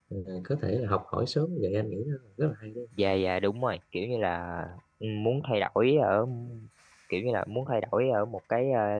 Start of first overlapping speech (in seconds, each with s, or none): none